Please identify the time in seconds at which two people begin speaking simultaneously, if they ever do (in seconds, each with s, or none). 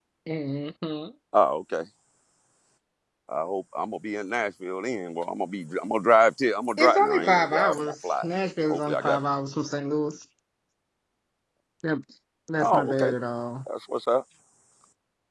6.8 s